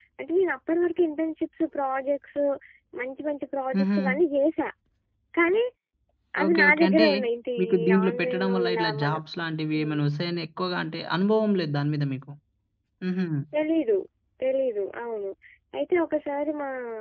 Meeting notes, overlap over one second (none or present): present